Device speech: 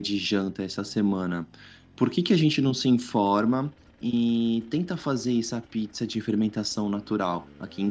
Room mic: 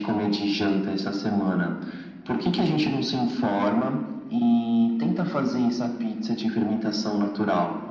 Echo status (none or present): present